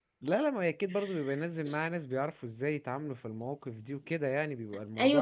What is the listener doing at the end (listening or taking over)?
taking over